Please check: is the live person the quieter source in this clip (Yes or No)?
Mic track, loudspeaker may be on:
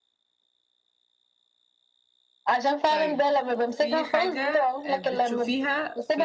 Yes